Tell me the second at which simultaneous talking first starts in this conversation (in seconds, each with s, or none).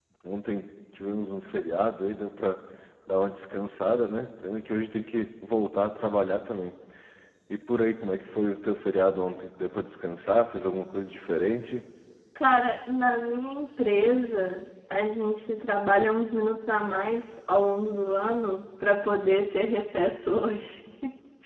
none